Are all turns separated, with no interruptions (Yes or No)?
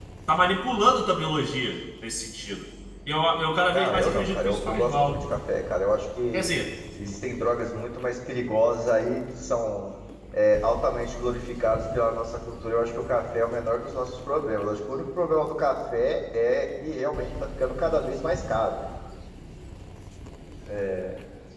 No